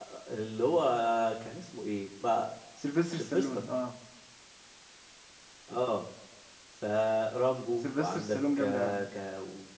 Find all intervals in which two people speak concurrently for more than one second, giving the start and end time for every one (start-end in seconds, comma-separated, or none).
7.8-9.1